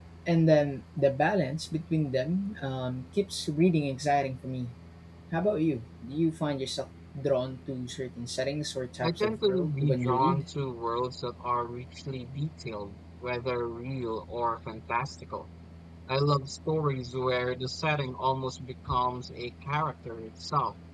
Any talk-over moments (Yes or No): Yes